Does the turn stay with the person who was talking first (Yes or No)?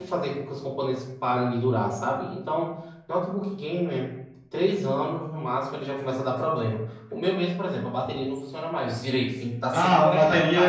No